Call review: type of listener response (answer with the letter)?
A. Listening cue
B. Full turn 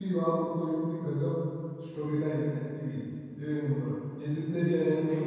A